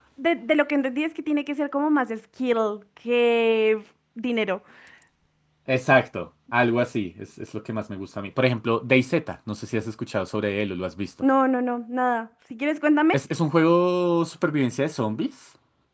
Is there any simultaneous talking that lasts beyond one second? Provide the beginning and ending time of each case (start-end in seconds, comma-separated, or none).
none